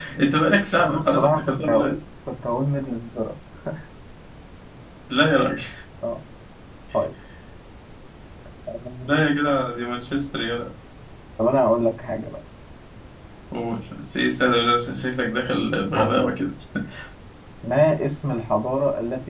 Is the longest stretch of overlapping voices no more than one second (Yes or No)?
No